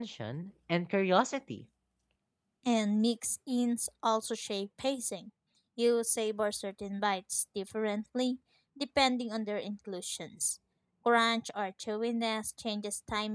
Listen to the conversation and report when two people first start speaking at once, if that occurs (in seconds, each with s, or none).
none